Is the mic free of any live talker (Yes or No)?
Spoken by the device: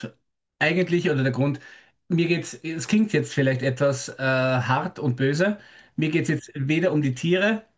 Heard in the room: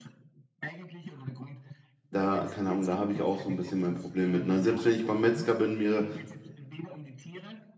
No